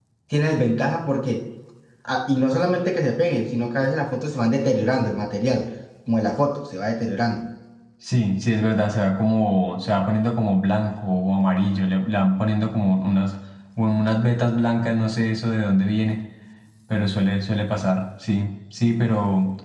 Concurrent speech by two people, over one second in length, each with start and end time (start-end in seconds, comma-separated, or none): none